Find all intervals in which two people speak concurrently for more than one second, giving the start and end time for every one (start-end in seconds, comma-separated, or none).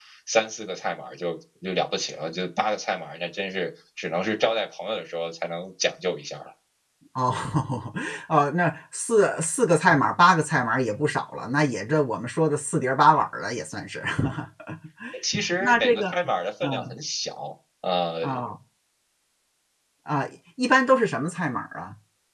none